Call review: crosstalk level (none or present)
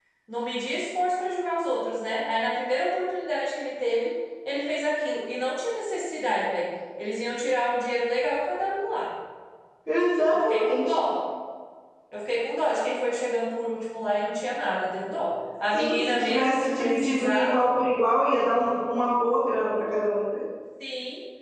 present